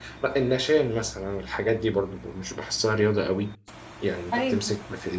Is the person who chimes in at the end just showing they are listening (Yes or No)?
Yes